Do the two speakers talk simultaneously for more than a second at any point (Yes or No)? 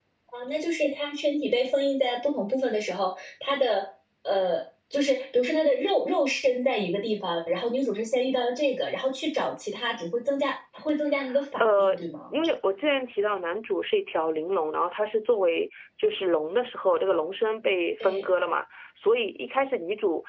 No